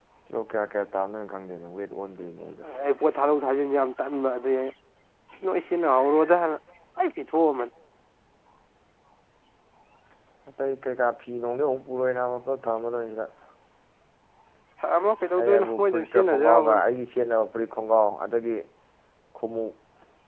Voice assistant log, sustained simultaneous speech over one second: present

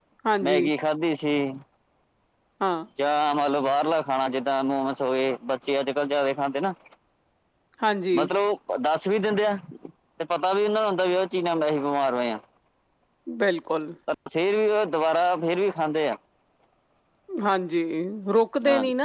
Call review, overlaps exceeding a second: none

